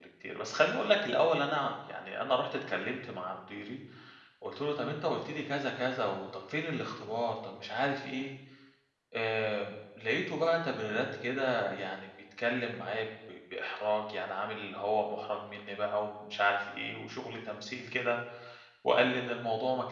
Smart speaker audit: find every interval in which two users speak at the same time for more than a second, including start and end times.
none

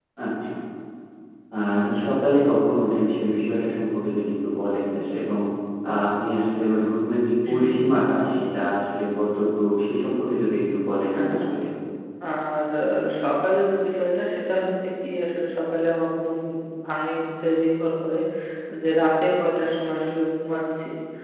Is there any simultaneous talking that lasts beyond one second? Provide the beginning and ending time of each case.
none

